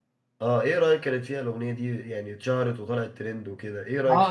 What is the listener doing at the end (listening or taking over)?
taking over